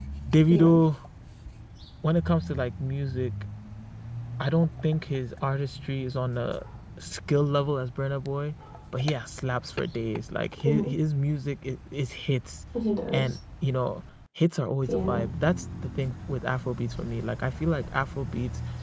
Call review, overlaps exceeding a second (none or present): none